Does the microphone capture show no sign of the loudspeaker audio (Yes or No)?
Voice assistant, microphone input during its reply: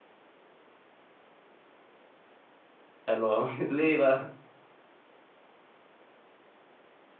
Yes